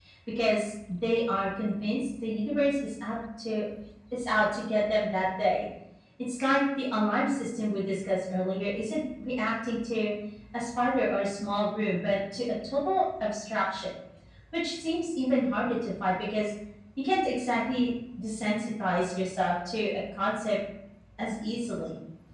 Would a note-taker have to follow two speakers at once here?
No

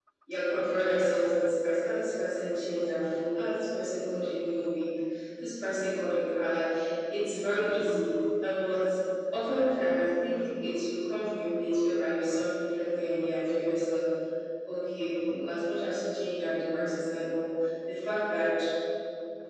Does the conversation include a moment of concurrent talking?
No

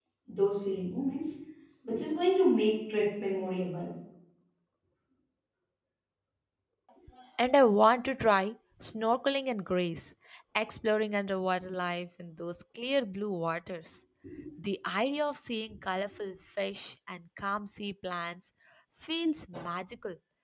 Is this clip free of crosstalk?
Yes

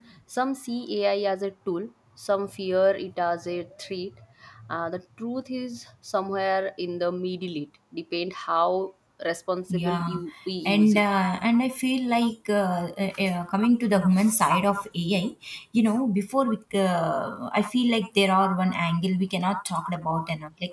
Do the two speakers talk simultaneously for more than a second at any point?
No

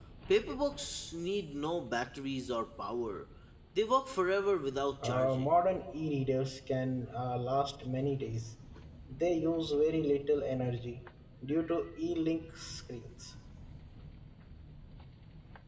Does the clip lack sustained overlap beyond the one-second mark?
Yes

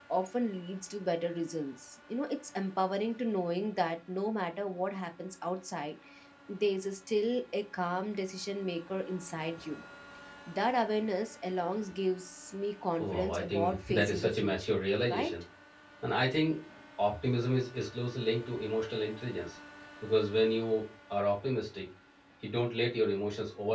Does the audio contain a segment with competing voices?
Yes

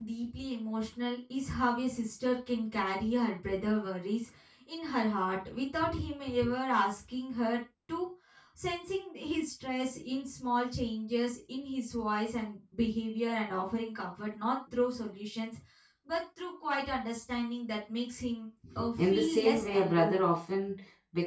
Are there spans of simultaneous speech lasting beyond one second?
Yes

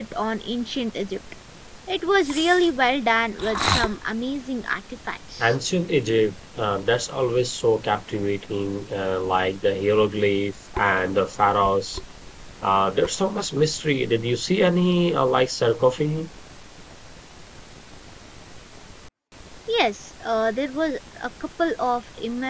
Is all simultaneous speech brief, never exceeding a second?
Yes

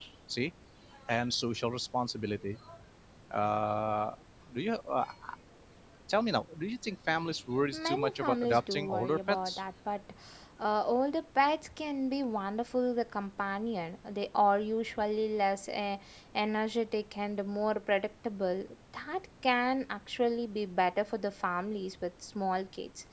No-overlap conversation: No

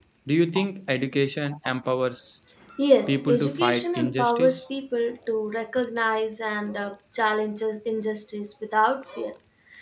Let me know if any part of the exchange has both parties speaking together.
Yes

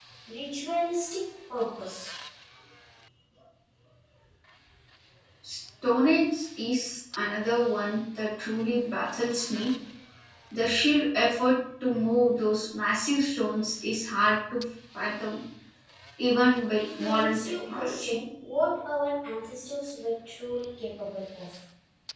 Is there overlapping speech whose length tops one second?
Yes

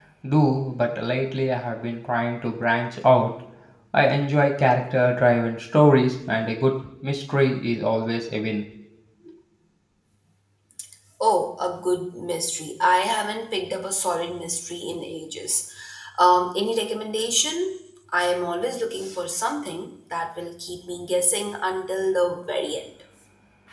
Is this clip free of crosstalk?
Yes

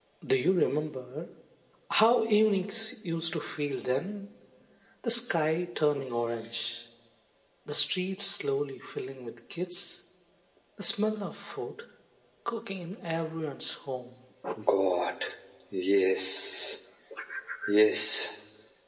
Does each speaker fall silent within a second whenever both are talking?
Yes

